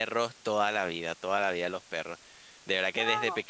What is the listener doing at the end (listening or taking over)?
listening